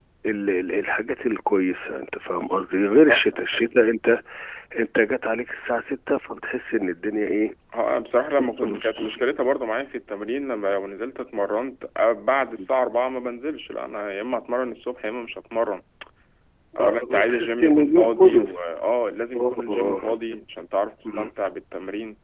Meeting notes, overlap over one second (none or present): present